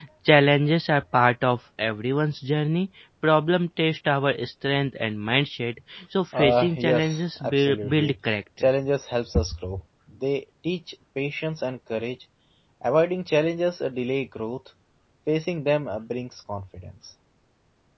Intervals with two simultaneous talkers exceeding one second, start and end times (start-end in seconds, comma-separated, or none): 6.4-8.1